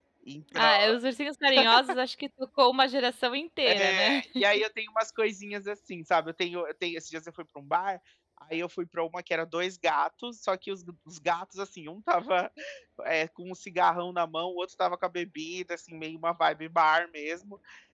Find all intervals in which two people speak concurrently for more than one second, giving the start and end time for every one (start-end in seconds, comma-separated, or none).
none